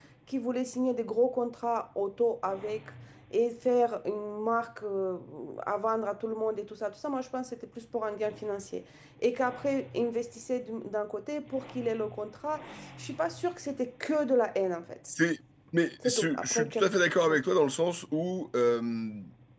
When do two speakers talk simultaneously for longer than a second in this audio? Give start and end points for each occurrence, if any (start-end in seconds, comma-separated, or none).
16.0-17.4